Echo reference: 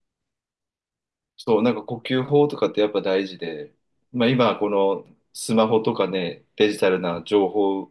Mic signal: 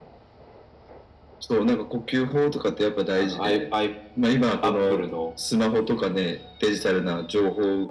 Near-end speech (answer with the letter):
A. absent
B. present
B